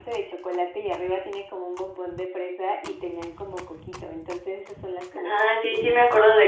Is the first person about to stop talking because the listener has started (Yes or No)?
Yes